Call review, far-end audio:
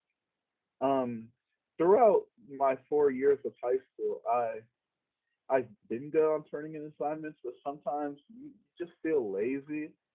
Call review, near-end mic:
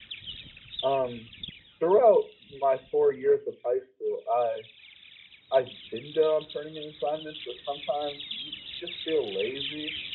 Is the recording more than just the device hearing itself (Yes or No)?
No